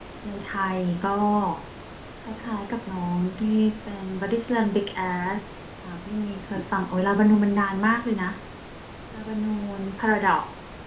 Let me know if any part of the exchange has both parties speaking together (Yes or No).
No